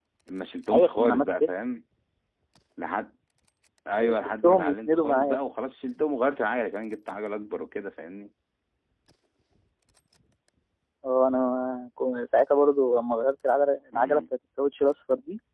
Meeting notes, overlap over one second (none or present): present